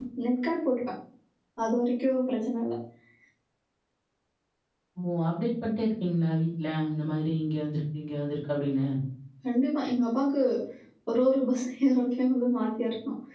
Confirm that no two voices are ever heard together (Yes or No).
Yes